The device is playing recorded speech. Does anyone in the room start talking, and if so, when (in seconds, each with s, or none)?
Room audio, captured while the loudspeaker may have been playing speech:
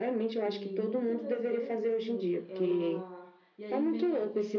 0.4 s